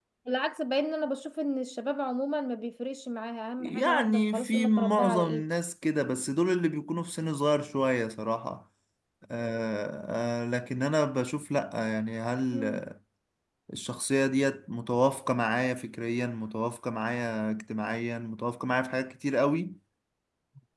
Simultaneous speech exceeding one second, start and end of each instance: 3.6-5.4

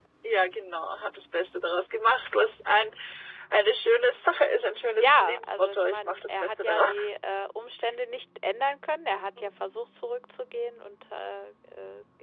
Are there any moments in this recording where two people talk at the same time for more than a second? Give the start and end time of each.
5.0-6.9

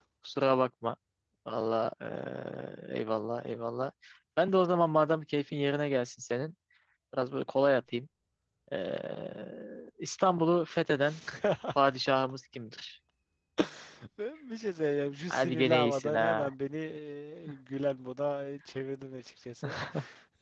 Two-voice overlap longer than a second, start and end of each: 15.3-16.5

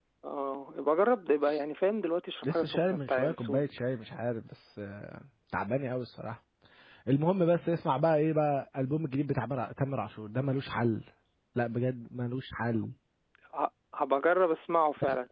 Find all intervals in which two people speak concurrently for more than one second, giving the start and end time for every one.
2.4-3.6

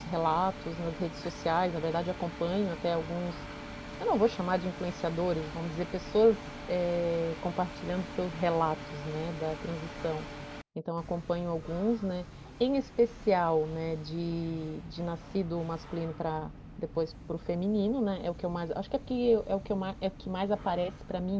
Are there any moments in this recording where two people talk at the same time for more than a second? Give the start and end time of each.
none

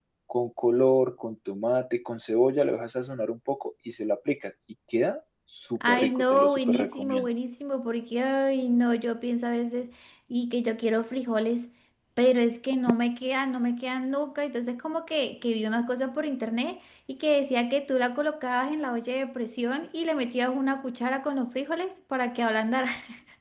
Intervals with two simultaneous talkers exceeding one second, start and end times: 5.9-7.3

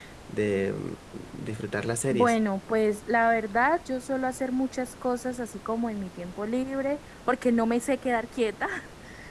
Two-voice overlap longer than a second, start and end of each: none

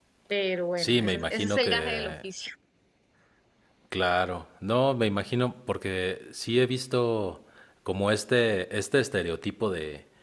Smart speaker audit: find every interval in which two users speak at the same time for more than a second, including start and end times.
0.8-2.2

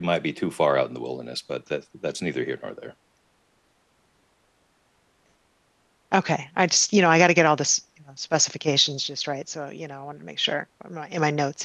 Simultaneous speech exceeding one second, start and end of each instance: none

